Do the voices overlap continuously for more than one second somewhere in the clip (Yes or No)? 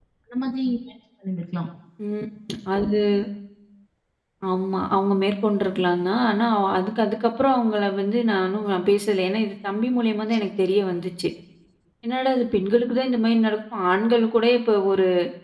No